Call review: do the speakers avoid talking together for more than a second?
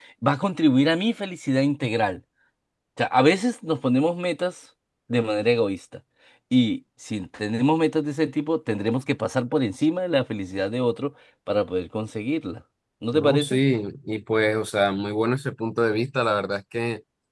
Yes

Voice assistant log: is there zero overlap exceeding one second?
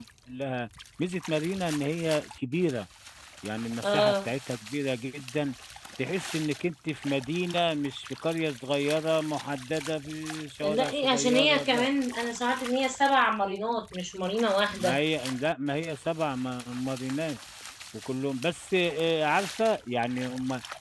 No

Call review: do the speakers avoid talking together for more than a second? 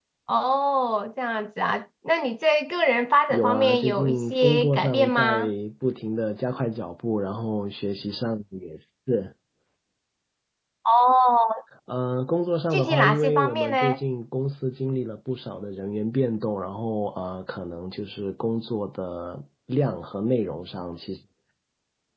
No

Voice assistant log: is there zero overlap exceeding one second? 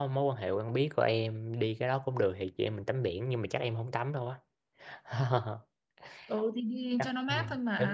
Yes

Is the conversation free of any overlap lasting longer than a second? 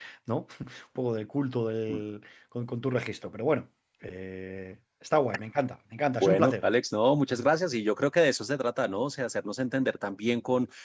Yes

